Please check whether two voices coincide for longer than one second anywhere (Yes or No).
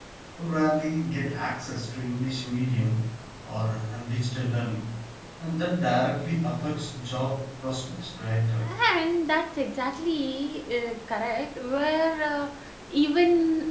No